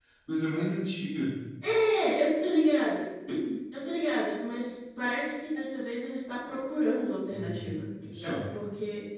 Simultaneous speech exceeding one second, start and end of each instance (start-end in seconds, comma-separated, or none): none